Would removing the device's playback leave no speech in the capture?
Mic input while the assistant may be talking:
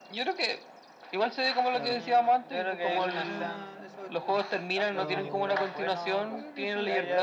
No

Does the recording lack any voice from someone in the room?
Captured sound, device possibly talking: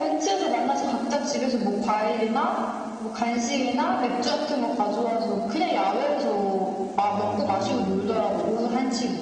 No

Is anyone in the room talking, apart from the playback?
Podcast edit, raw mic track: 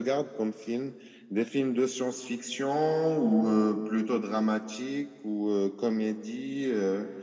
No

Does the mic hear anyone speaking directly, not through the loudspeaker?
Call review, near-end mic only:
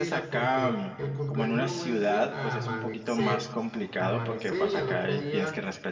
Yes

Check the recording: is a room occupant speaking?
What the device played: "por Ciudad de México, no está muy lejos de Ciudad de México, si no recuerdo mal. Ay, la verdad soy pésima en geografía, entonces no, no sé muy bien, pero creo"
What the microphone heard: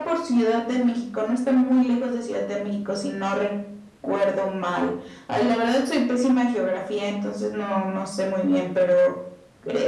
No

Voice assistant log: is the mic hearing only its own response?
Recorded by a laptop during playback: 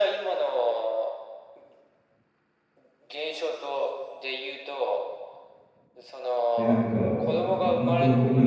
No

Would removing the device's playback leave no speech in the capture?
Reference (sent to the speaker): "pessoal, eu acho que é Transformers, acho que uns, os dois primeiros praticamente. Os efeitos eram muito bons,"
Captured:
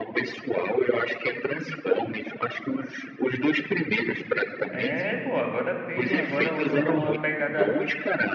No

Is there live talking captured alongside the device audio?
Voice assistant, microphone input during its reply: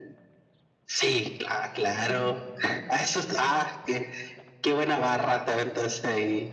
Yes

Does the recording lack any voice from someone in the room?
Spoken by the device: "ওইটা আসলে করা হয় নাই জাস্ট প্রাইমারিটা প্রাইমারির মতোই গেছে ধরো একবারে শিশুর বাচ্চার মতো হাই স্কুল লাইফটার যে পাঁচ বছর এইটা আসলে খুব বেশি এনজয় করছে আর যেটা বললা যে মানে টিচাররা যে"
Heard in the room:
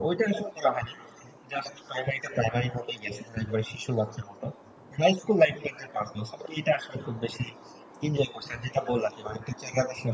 Yes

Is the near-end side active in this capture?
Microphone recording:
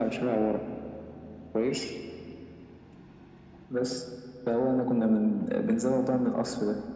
No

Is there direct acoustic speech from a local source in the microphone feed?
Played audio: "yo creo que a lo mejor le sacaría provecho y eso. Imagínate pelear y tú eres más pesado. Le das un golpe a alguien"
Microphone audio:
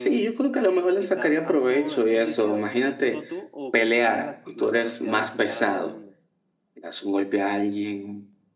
Yes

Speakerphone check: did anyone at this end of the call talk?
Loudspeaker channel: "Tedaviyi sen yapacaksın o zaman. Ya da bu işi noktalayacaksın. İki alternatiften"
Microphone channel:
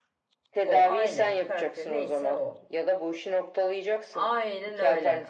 Yes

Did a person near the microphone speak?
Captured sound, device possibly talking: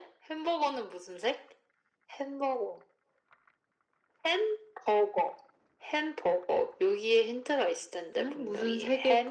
Yes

